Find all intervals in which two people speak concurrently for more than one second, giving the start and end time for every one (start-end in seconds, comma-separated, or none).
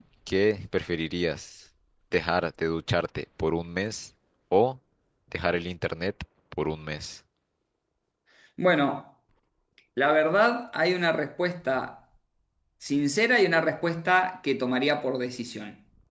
none